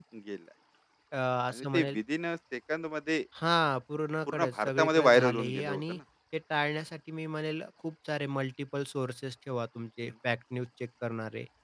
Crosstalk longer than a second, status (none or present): present